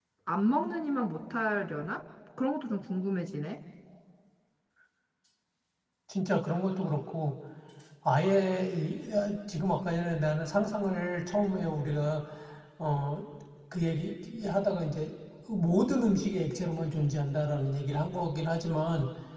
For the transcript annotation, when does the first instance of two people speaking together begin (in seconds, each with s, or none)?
none